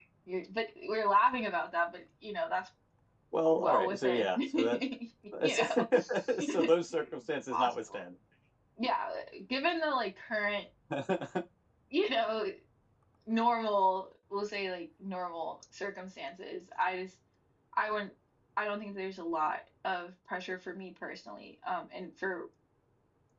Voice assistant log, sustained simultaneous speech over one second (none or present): present